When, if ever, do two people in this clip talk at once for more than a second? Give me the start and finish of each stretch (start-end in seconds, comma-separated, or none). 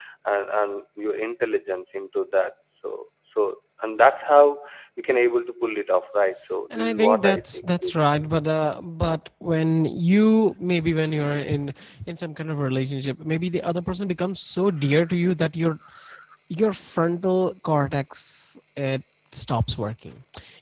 6.7-8.0